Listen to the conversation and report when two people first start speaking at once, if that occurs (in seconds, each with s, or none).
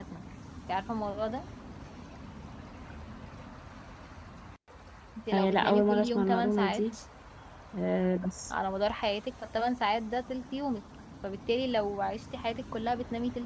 5.3 s